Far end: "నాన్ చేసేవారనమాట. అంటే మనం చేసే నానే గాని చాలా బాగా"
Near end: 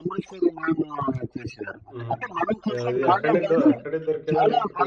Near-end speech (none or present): present